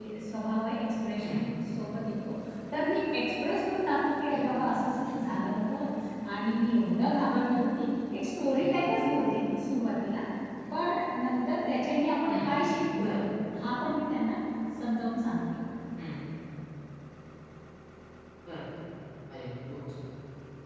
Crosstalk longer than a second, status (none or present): none